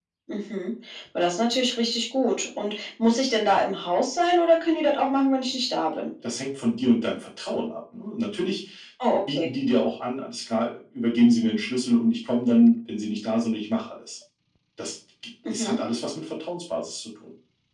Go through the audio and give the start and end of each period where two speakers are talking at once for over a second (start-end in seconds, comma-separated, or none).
none